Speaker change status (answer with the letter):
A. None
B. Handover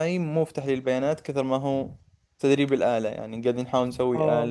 B